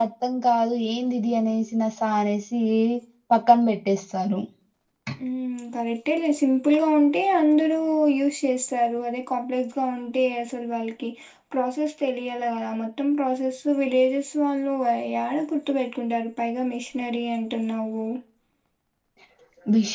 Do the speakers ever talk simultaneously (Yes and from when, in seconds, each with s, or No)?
No